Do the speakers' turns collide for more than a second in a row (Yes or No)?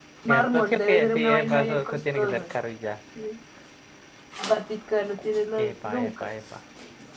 Yes